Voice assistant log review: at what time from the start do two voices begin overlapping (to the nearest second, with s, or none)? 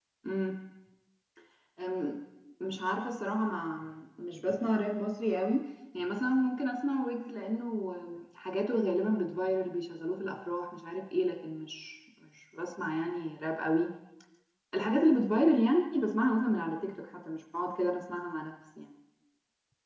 none